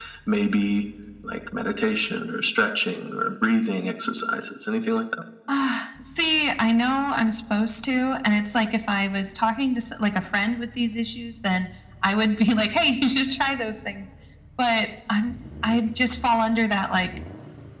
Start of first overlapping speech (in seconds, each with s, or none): none